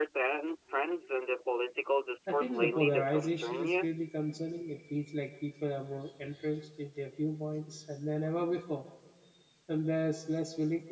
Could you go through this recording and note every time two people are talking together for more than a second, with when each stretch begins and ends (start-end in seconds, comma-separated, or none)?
2.3-3.9